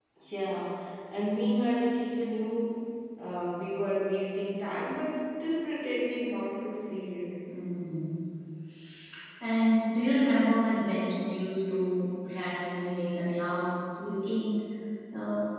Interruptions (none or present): none